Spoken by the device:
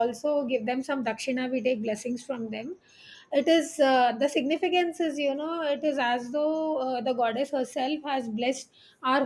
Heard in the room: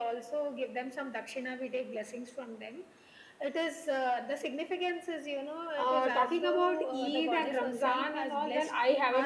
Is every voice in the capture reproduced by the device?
No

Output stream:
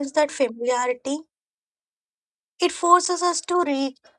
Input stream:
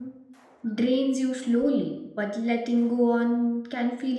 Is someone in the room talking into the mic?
Yes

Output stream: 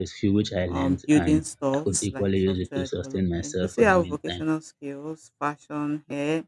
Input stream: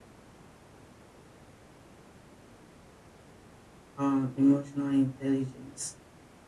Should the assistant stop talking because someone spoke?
Yes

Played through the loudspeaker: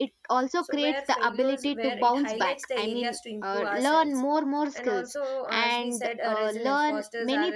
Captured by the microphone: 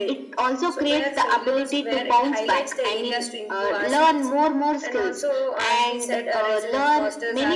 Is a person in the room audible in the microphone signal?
No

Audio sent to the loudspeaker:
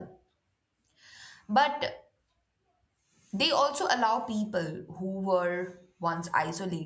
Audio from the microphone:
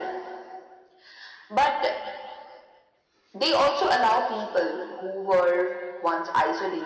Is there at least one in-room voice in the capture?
No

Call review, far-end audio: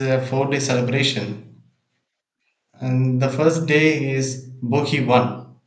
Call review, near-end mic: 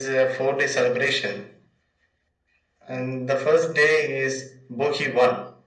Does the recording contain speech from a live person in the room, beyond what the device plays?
No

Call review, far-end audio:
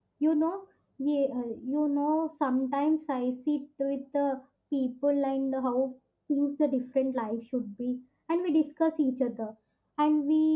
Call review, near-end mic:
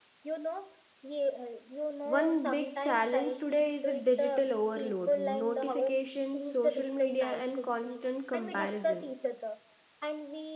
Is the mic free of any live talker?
No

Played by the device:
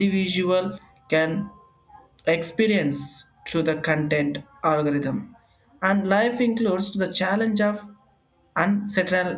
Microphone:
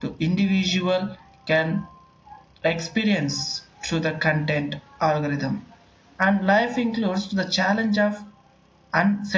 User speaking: No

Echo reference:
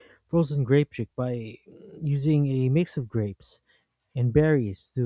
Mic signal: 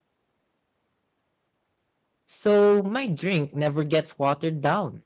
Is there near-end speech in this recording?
Yes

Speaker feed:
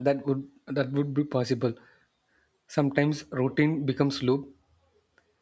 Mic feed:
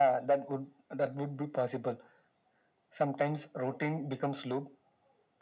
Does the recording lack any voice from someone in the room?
Yes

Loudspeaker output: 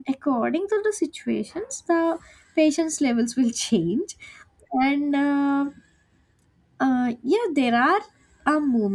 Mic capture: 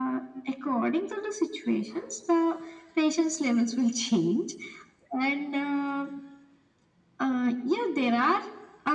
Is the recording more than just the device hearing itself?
No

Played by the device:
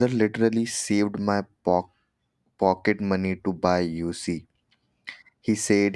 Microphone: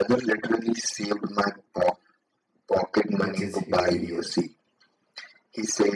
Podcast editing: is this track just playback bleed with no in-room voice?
No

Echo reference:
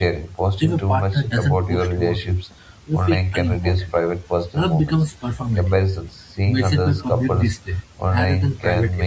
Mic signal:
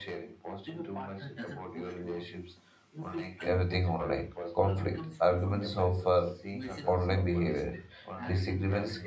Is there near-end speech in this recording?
Yes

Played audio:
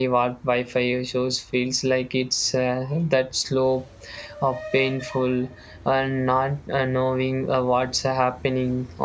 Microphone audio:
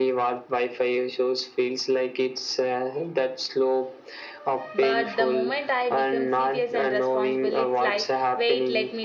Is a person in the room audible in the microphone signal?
Yes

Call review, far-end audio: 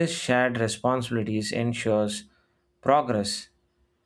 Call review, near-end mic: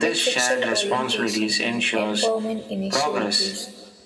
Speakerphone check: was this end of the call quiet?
No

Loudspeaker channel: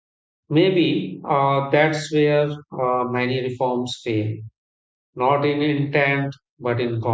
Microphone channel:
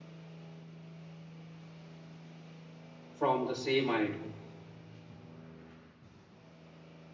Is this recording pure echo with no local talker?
No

